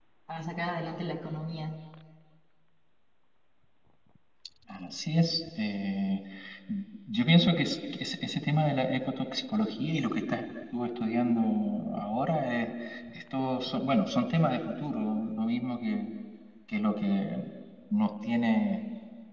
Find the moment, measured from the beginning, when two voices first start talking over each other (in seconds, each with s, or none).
none